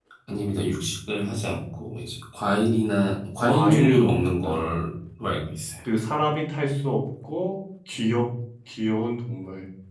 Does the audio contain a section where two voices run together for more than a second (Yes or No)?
Yes